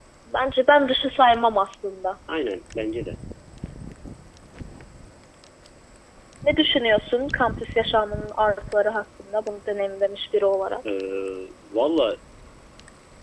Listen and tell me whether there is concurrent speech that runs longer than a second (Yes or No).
No